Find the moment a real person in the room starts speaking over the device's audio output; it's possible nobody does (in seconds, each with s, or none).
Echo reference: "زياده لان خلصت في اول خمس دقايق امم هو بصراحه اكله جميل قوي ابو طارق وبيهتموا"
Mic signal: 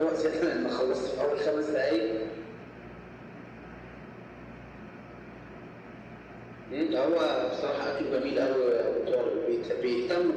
none